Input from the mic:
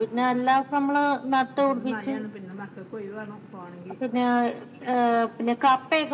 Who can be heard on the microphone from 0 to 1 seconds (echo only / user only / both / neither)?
echo only